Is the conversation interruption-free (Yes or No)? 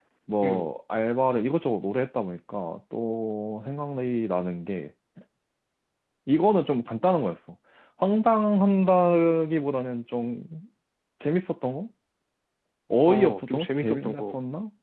No